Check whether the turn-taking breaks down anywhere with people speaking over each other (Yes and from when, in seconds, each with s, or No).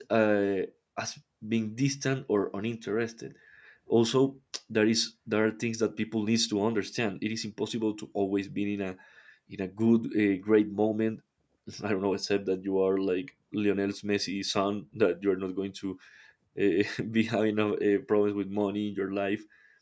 No